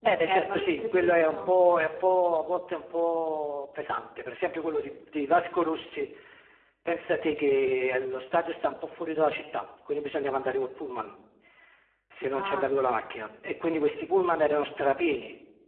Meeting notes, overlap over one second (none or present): present